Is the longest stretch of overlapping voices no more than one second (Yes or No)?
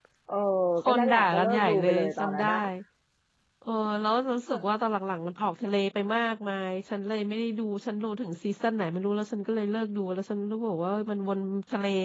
No